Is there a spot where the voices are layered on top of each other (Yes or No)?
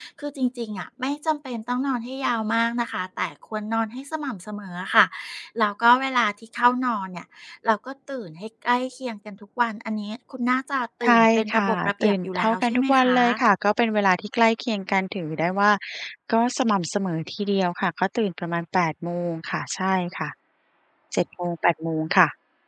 Yes